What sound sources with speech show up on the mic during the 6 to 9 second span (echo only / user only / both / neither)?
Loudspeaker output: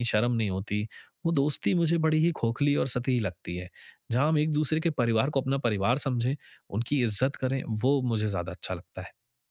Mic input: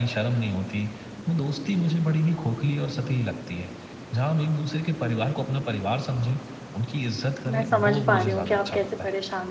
both